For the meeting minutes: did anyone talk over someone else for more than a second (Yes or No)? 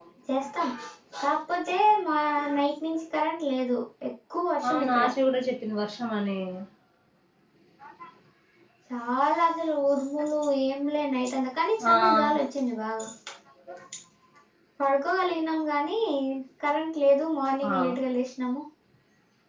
No